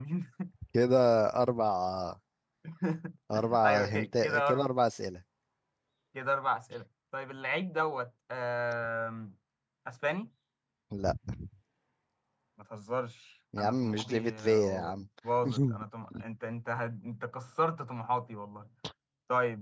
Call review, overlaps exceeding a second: present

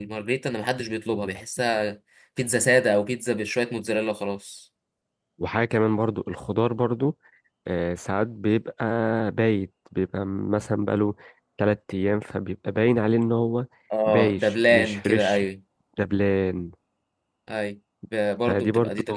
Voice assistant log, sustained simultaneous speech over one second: present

